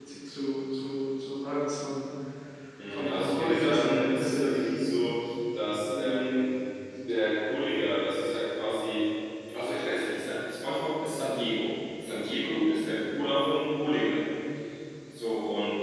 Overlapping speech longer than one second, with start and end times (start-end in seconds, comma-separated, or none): 2.9-4.9